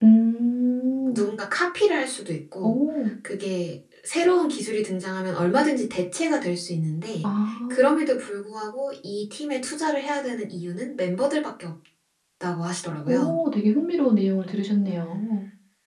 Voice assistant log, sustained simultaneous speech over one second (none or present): none